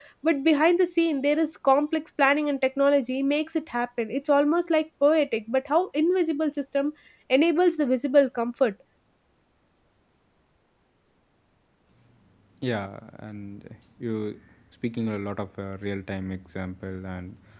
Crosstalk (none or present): none